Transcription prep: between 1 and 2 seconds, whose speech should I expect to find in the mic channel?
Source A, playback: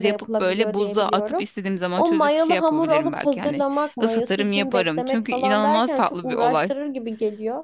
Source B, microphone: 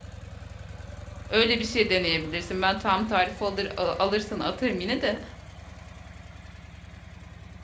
user only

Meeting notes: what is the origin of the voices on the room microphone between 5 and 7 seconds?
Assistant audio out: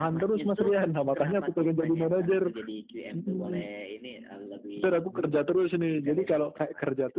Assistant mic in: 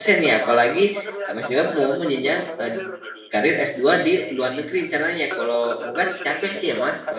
both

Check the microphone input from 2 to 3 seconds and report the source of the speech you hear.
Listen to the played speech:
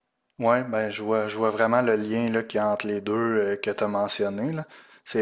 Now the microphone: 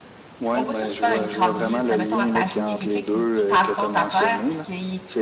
both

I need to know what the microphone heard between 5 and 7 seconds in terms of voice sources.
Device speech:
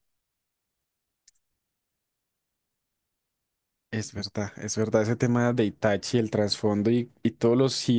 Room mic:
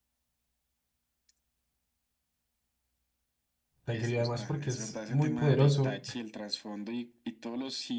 both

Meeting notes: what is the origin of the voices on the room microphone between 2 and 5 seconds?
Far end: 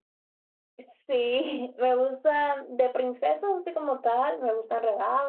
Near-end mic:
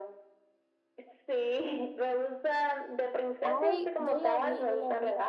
both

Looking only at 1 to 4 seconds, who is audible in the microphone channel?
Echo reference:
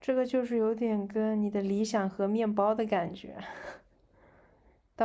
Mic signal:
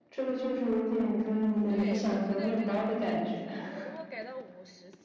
both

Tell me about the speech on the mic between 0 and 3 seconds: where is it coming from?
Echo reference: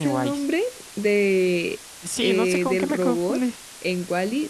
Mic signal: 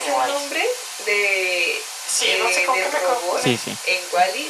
echo only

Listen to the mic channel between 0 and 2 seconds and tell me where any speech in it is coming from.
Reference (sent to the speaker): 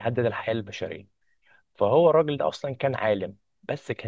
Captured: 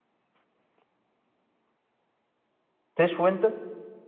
neither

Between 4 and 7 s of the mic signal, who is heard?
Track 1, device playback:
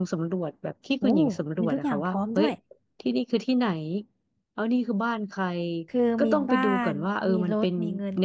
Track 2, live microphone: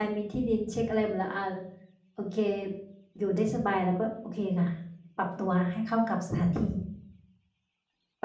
user only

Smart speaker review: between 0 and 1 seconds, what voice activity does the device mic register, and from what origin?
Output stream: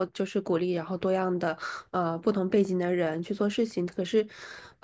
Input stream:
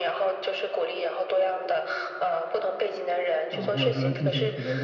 echo only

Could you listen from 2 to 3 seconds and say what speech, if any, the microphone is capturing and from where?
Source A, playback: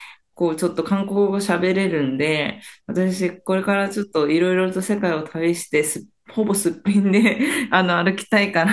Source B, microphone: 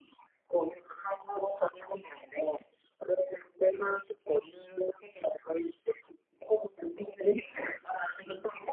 echo only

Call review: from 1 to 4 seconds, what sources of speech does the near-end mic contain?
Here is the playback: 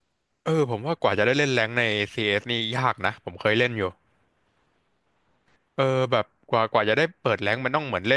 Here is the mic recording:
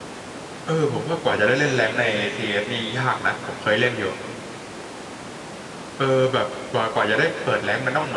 echo only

